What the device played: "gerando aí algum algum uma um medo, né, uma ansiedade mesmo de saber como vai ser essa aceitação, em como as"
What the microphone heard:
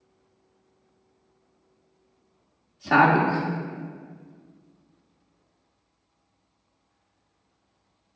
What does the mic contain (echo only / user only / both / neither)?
user only